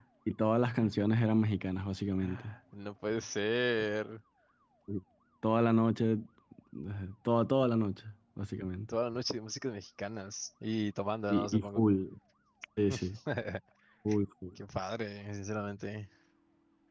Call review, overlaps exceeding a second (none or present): none